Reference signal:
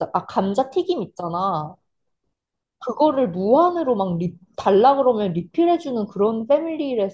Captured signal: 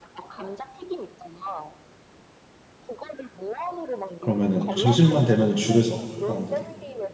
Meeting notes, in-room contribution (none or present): present